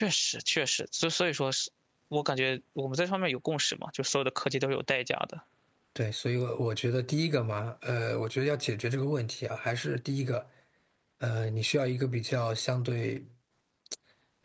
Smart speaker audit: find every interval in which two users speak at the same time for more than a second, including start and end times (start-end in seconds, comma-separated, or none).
none